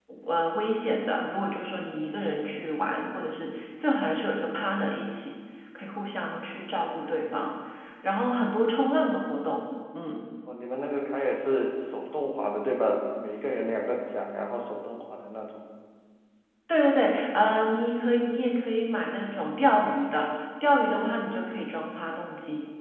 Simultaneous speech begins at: none

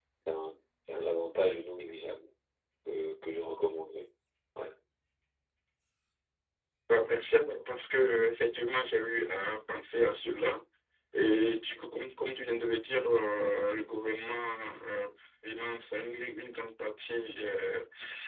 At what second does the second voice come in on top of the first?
none

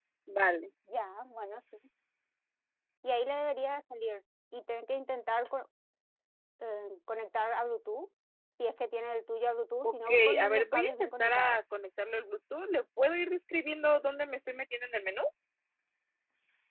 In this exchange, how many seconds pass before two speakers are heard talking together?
9.8 s

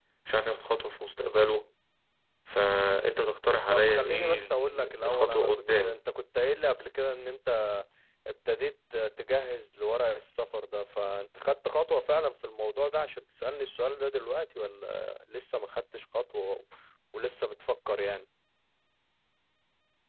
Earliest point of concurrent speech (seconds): 3.7 s

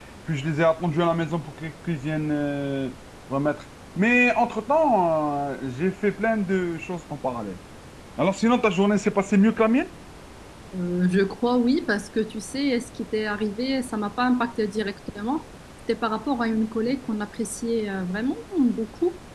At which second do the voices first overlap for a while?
none

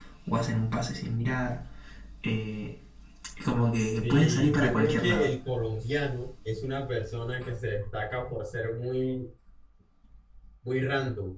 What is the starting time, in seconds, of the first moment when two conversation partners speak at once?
3.7 s

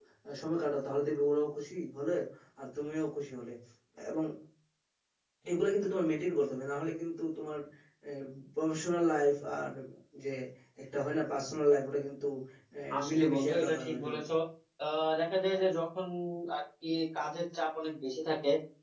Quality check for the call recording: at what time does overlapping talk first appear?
13.0 s

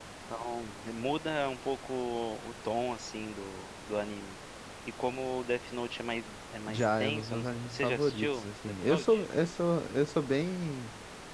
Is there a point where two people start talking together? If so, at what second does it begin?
6.7 s

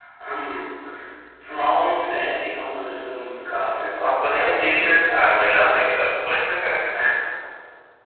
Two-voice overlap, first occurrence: 4.0 s

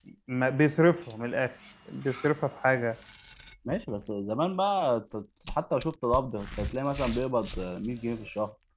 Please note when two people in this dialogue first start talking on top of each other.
none

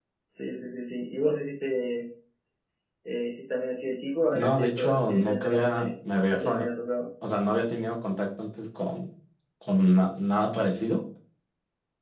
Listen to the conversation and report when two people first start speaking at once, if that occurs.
4.3 s

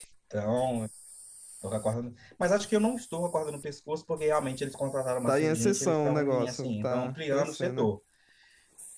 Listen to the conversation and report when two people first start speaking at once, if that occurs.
5.3 s

